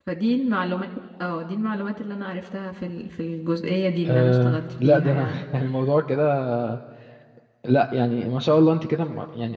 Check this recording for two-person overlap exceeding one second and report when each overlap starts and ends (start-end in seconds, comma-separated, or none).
4.1-5.4